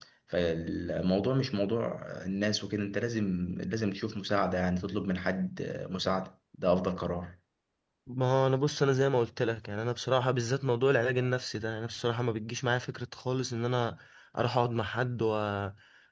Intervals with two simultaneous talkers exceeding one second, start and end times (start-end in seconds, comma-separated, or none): none